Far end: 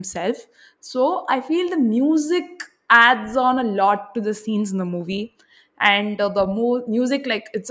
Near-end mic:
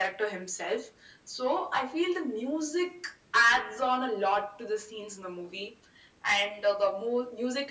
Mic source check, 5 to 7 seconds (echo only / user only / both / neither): echo only